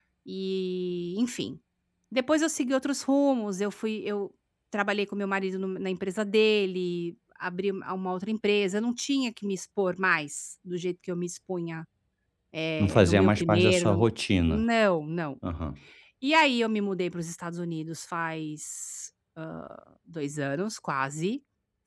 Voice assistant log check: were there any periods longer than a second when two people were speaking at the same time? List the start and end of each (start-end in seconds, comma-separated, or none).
12.8-14.1